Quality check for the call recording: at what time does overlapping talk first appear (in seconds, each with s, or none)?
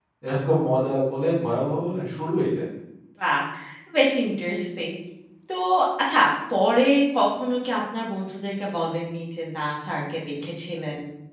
none